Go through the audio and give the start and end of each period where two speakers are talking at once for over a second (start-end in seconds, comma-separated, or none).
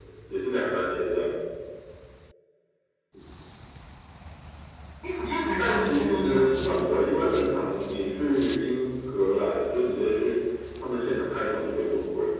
5.6-7.3